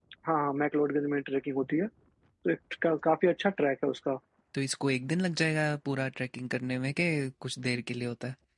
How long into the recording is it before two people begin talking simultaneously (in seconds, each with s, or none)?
none